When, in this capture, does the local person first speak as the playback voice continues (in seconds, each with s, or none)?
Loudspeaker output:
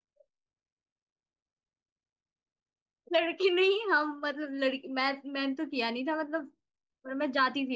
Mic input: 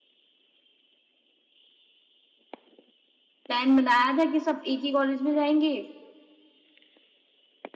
3.5 s